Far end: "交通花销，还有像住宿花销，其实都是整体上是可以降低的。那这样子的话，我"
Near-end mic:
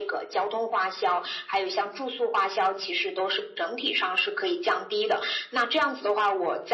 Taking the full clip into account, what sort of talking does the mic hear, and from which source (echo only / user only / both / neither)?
echo only